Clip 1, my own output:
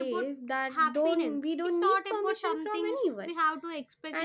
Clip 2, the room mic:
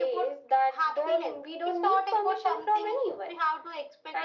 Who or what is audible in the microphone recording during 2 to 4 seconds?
echo only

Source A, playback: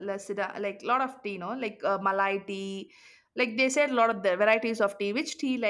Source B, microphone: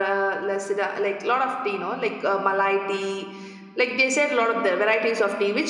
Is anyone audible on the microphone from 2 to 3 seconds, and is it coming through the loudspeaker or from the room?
echo only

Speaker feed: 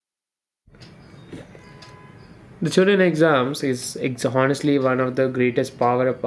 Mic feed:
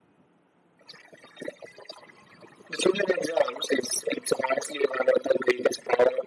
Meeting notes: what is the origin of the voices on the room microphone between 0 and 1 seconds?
neither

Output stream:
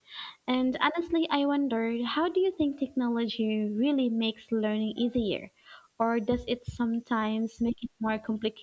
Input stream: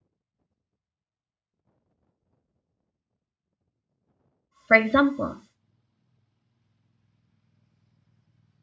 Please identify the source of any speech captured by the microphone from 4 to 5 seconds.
user only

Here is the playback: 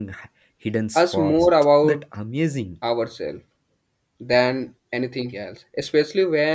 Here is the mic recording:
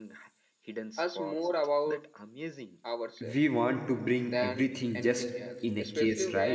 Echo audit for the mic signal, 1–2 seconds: echo only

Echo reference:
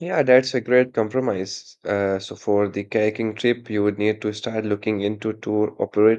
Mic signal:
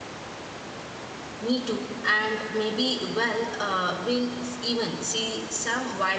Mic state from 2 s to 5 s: user only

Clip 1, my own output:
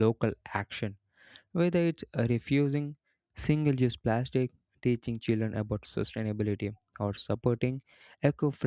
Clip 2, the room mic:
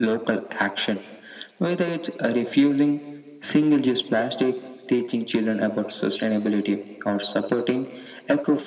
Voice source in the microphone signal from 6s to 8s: echo only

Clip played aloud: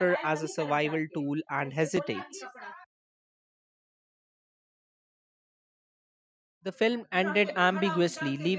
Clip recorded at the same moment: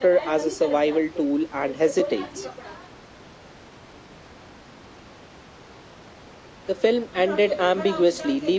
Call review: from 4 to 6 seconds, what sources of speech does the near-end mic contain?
neither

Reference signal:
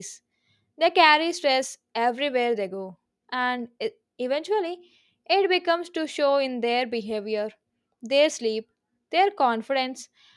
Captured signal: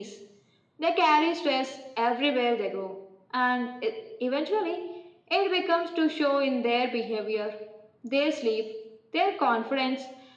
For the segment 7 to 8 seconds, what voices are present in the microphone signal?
echo only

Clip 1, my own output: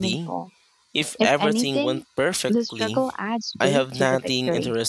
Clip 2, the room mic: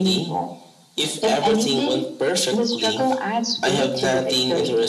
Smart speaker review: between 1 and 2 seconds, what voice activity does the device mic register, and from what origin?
echo only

